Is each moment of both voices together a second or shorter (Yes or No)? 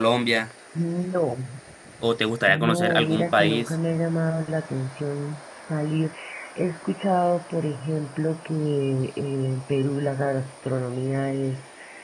No